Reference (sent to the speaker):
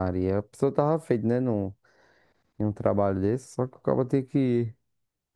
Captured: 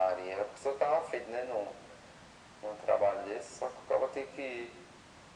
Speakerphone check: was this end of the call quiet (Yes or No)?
Yes